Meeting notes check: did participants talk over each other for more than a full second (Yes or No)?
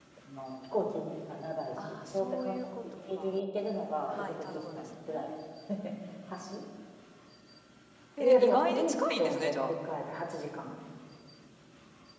Yes